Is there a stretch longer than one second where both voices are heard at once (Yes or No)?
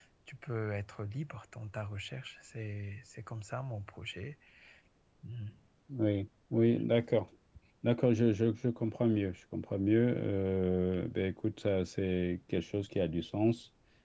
No